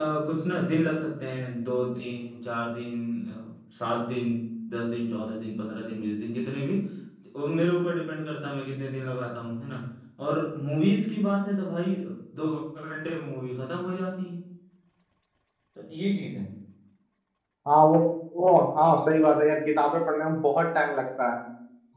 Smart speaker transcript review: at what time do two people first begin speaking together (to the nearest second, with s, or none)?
none